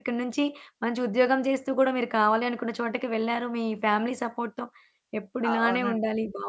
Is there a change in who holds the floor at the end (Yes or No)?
No